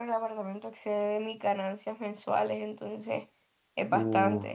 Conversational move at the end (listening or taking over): taking over